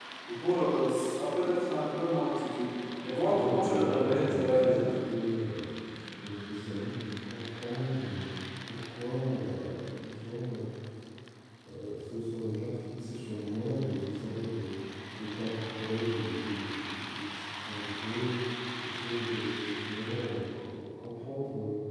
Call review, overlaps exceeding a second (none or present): present